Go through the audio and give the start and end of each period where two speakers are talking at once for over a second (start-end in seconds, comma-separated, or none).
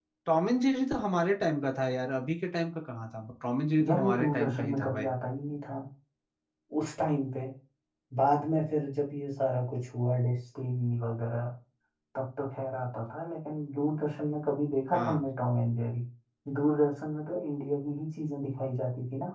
3.9-5.1